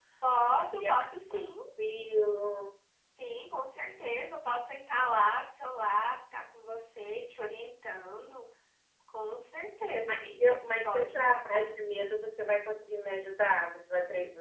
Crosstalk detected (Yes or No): Yes